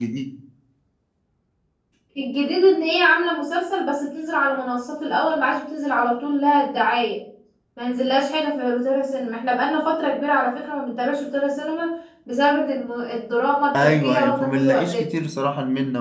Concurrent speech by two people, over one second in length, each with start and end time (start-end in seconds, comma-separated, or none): 13.8-15.1